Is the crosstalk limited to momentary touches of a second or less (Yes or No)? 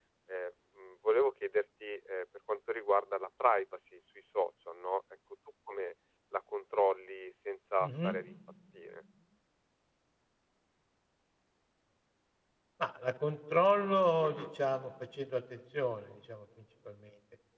Yes